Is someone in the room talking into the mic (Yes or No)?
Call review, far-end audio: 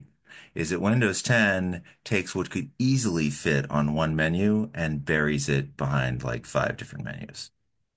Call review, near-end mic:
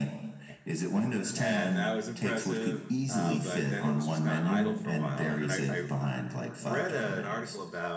Yes